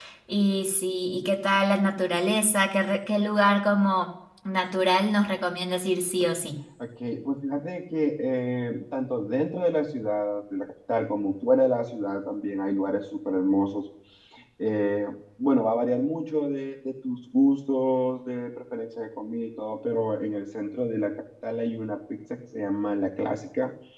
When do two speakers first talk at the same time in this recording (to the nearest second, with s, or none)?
none